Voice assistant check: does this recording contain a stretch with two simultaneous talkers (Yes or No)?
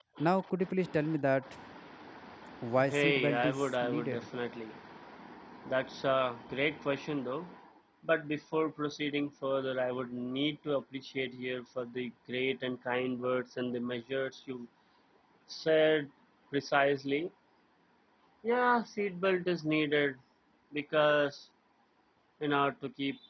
Yes